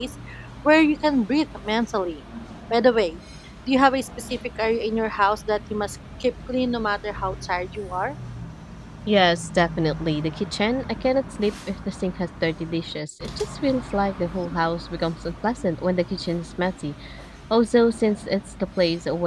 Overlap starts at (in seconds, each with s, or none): none